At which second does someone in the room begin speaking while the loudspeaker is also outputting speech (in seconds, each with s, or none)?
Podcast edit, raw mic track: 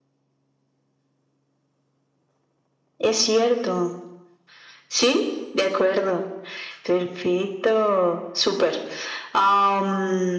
none